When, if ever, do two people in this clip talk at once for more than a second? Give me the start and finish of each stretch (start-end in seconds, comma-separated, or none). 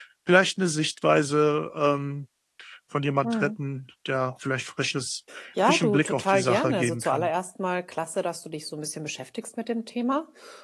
5.6-7.3